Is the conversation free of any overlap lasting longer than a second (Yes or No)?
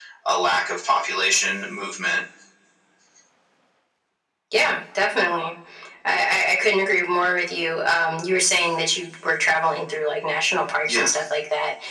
Yes